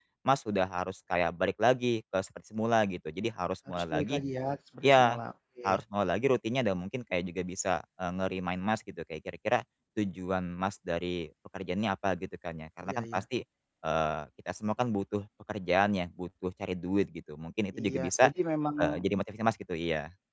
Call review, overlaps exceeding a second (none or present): none